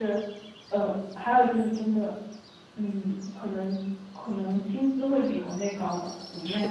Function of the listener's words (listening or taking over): taking over